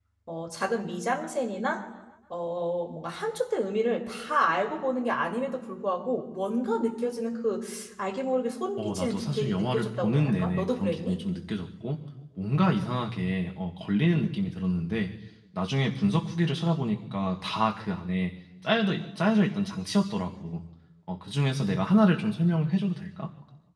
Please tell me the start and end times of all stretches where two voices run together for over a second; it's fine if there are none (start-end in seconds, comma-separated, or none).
8.8-11.1